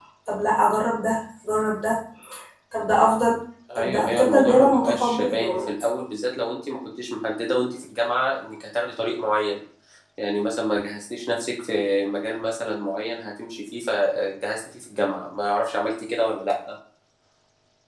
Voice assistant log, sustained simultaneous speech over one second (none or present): present